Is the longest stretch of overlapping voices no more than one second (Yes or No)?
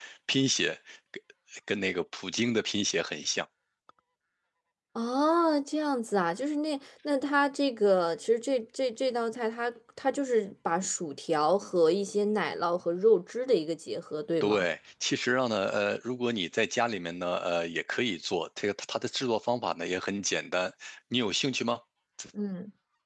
Yes